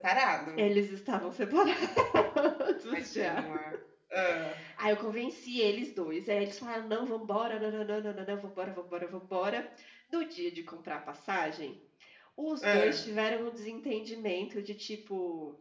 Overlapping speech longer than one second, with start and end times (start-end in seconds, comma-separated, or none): none